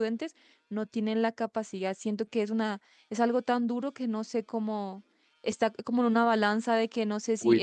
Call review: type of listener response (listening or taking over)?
taking over